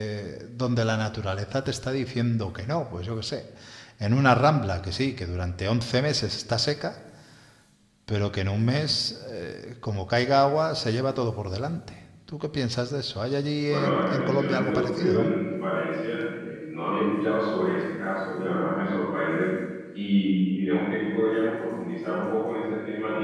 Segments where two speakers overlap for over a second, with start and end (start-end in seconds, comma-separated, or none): 13.7-15.3